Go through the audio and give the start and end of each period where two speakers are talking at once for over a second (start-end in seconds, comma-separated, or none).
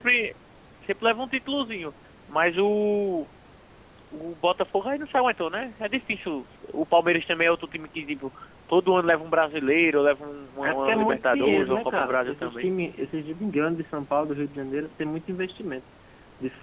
10.6-12.7